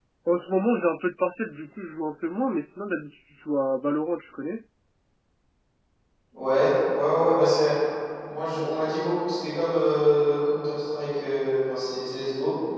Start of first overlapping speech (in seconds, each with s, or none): none